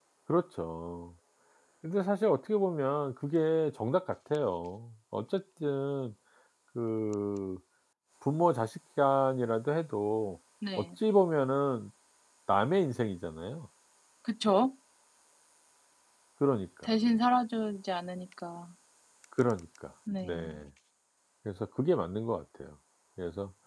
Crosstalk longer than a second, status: none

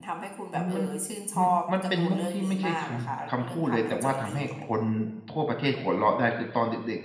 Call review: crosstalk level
present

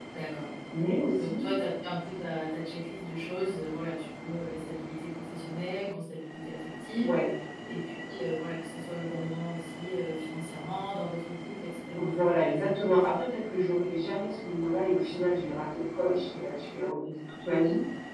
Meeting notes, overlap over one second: none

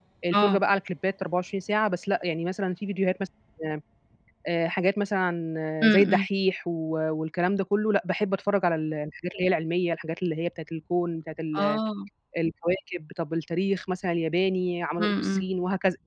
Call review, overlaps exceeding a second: none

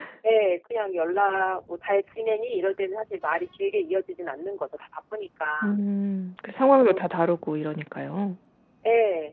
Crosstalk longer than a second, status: none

